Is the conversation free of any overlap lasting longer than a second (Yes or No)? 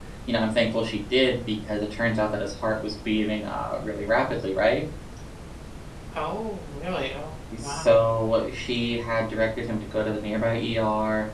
Yes